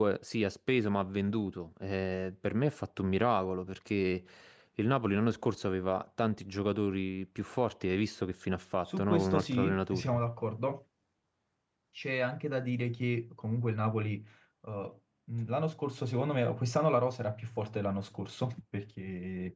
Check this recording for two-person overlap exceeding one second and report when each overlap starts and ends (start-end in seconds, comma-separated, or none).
8.8-10.1